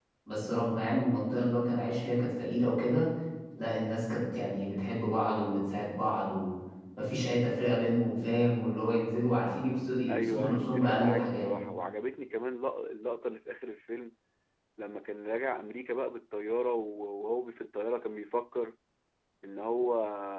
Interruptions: present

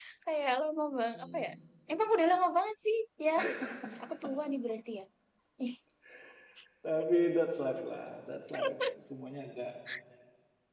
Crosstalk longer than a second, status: none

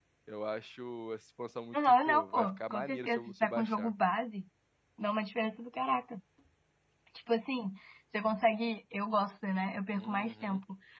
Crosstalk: present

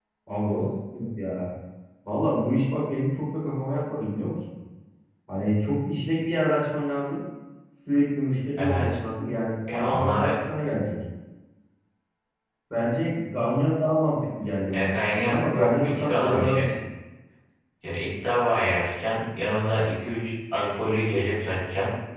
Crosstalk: present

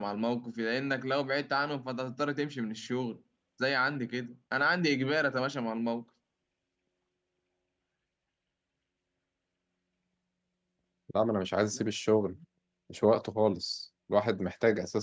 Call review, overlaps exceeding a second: none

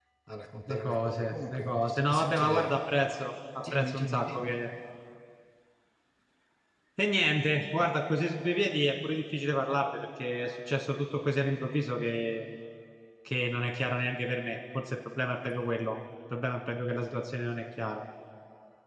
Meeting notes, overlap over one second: present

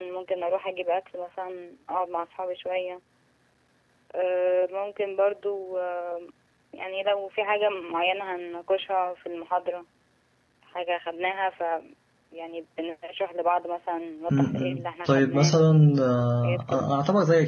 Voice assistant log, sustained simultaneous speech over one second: present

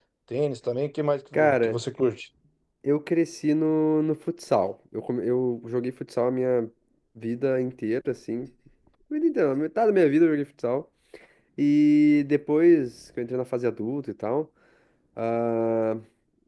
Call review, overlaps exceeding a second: none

